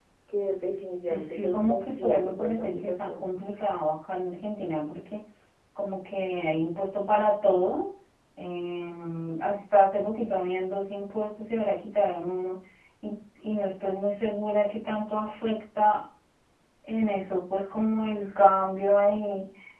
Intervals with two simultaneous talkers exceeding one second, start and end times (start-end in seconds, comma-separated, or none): 1.1-3.3